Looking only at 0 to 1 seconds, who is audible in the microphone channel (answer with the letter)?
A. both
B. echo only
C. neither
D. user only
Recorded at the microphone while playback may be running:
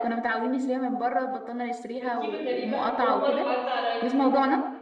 B